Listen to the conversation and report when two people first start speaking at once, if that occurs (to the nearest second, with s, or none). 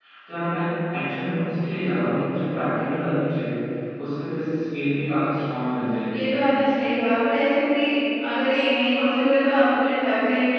none